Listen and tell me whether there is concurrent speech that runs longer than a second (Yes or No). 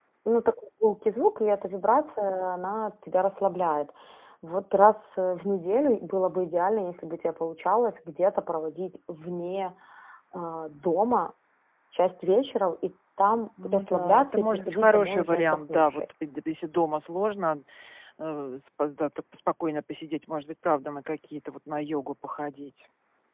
Yes